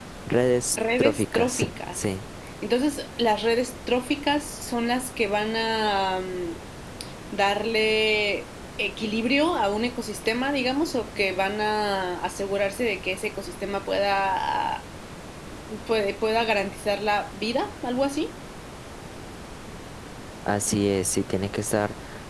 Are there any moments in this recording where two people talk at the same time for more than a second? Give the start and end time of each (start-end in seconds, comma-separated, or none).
0.7-2.0